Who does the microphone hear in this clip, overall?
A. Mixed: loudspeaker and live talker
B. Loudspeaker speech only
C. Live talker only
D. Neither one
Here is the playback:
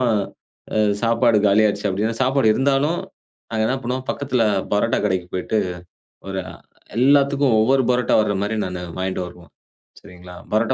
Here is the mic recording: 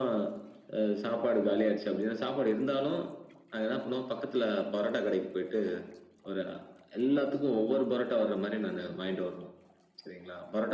B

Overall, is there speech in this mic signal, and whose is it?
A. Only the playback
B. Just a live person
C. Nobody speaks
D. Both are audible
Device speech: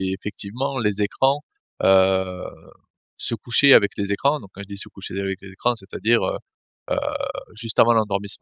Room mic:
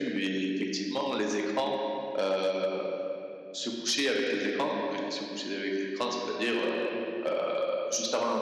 A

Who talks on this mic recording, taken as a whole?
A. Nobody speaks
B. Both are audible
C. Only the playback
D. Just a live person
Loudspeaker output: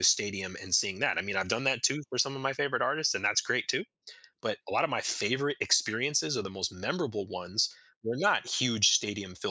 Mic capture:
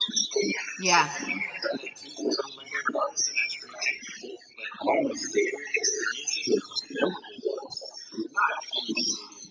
B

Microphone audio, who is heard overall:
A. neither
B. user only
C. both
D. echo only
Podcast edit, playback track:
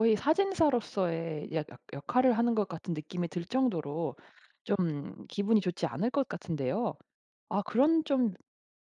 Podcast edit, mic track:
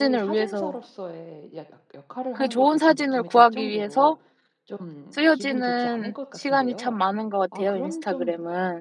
C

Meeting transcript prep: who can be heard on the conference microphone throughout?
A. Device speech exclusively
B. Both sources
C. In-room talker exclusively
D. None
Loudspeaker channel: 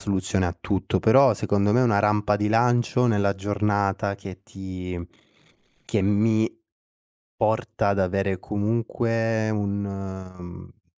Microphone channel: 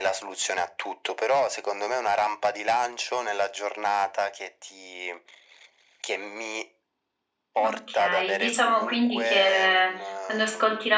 B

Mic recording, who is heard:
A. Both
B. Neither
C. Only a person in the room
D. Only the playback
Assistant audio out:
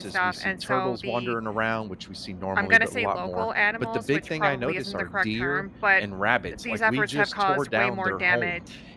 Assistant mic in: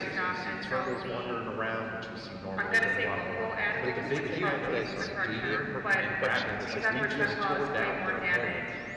A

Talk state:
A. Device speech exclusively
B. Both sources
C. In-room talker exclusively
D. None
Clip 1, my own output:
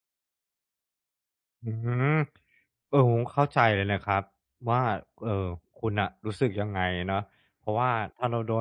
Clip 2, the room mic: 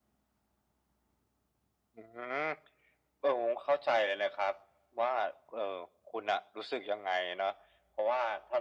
A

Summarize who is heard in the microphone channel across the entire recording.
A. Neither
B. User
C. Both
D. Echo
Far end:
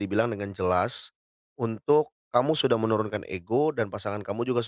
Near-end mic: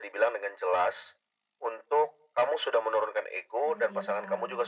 C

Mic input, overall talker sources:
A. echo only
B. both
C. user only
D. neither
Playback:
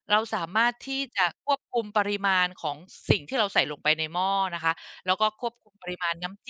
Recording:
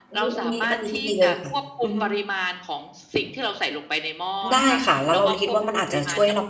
B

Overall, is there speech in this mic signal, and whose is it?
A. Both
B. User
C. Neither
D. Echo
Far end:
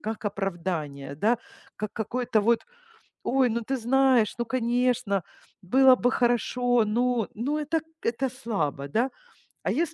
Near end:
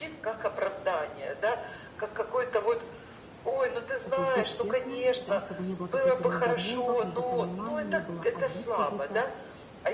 A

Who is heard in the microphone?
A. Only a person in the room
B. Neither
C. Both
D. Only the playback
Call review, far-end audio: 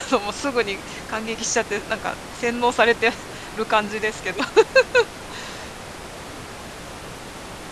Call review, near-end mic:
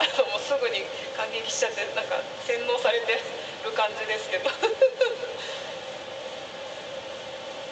D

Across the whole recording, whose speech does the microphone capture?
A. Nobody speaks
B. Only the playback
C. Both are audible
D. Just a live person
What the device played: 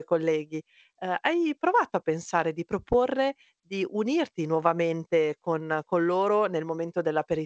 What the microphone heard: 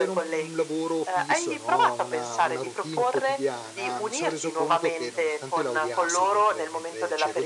C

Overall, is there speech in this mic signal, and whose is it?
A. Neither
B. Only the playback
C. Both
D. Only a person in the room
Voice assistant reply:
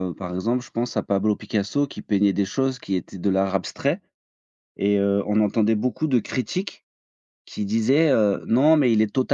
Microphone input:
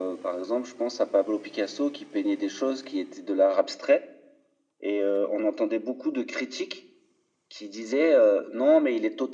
B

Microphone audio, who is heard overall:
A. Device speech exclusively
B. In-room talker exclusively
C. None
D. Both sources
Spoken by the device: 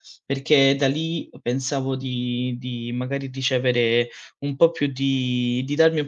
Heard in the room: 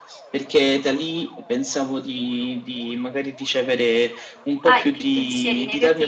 D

